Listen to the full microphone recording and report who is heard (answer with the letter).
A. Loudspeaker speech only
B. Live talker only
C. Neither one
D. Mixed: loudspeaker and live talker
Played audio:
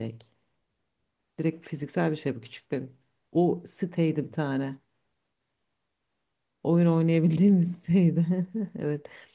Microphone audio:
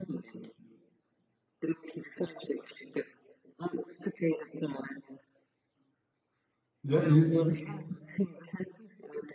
D